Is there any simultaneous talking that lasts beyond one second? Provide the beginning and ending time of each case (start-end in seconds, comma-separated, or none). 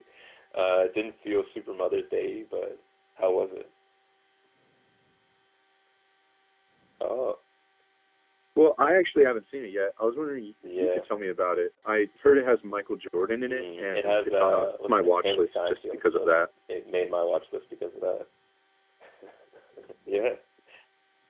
13.4-16.3